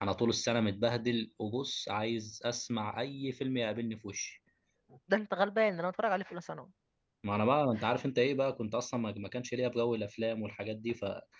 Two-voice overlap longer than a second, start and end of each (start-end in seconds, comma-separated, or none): none